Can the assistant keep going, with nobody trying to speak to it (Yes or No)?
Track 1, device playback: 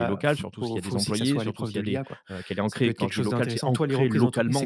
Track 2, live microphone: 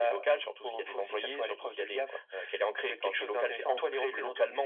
Yes